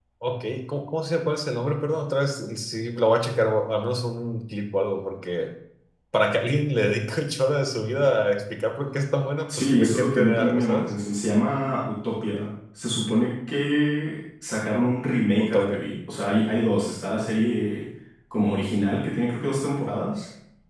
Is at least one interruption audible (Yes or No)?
Yes